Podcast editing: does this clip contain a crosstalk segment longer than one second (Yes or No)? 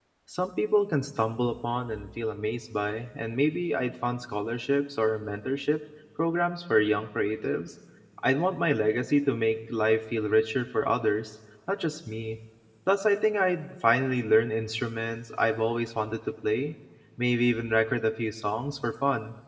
No